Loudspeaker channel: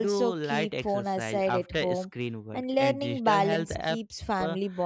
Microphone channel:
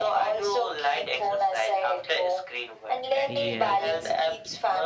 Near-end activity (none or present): present